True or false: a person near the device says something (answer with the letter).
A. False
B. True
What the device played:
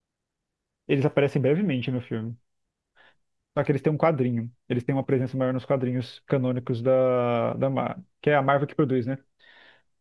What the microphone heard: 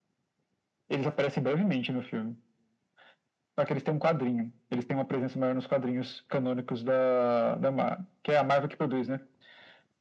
A